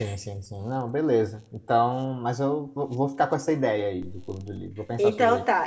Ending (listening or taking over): taking over